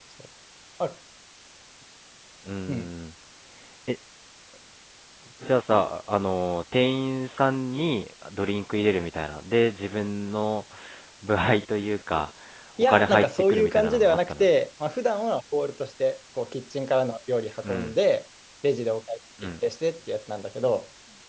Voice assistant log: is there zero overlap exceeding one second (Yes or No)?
No